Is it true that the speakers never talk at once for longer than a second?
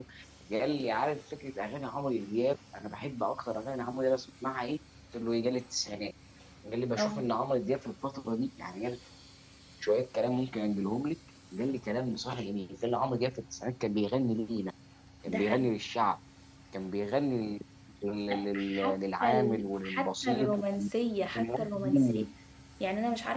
No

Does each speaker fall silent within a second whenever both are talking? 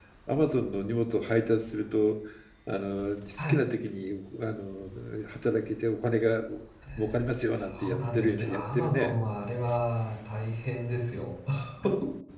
No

